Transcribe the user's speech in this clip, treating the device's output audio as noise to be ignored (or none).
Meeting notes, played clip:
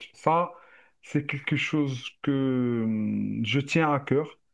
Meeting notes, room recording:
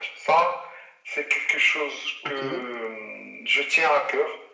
OK.